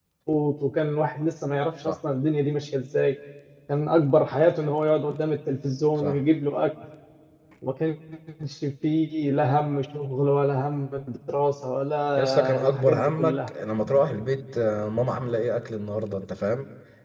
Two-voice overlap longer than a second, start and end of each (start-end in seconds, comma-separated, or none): 12.2-13.5